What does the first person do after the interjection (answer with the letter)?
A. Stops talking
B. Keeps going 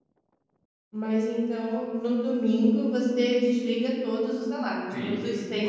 A